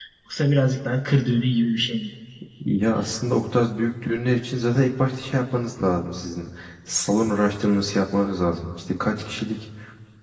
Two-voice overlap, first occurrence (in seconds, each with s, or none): none